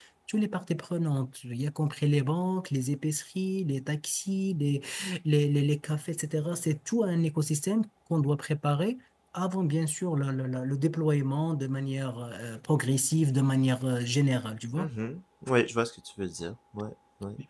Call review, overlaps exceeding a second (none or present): none